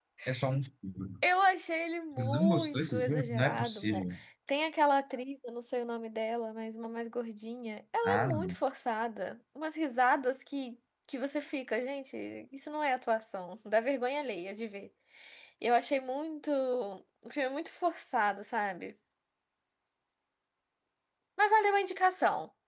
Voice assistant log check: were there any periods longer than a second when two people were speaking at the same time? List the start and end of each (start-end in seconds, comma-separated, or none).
2.2-4.0